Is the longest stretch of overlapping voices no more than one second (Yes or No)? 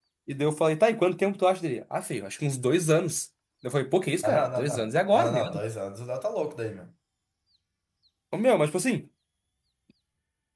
No